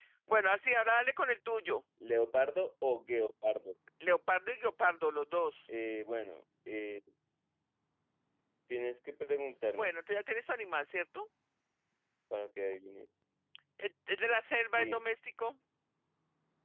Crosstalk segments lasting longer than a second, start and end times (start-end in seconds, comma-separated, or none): none